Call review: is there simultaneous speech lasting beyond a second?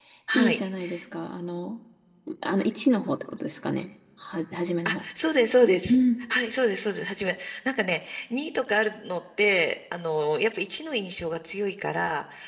No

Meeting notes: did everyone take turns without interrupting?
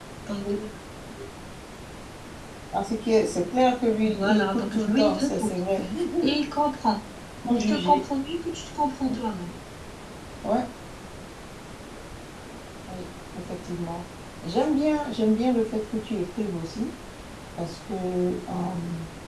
No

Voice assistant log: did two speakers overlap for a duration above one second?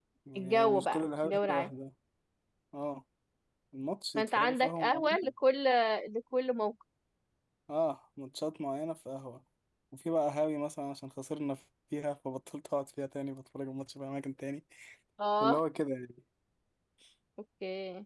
Yes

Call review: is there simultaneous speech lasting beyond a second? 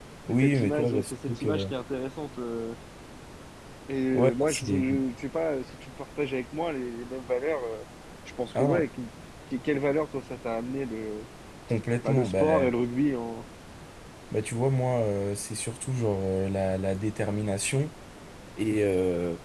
Yes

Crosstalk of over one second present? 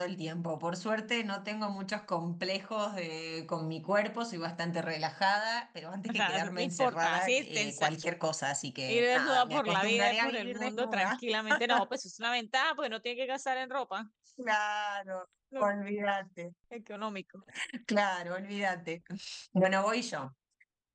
Yes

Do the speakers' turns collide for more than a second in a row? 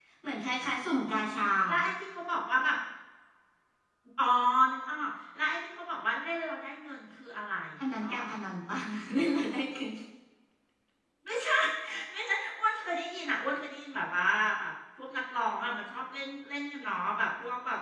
No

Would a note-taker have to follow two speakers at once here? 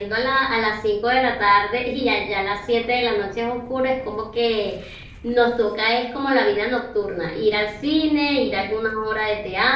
No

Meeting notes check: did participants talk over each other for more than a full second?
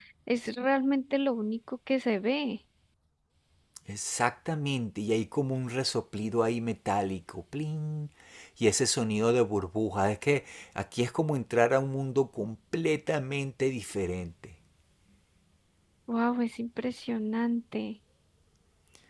No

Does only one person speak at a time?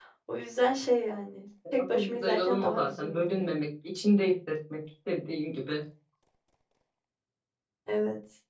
No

